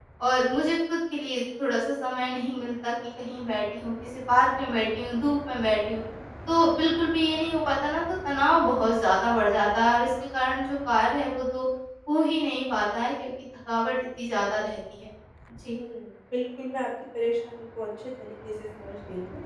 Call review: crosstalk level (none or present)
none